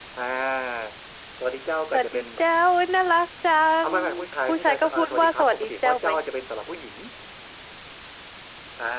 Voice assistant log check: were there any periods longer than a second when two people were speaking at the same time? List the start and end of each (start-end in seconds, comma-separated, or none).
4.5-6.1